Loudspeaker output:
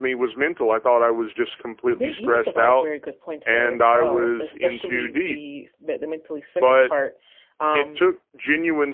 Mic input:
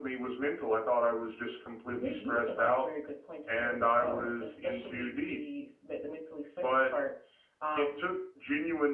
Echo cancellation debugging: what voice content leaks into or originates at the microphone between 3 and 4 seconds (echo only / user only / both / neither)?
echo only